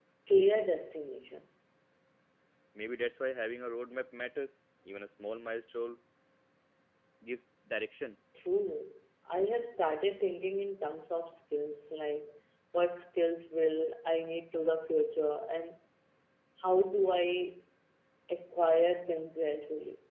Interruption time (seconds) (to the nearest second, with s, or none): none